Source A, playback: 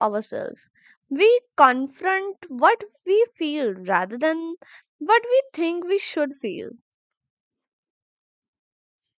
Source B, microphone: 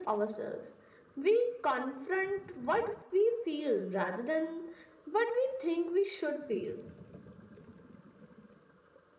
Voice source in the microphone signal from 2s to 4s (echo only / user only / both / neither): echo only